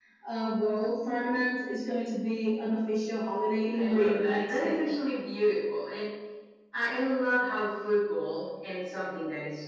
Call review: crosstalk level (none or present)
present